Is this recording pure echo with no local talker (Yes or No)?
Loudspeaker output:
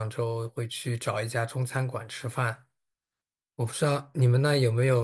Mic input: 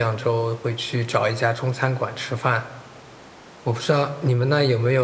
Yes